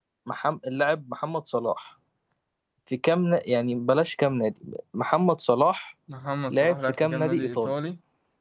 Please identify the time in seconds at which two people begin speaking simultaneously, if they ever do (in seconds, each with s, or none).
6.5 s